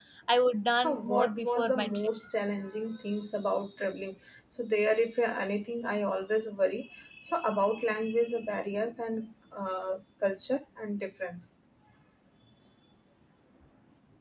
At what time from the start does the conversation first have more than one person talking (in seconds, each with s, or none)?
0.7 s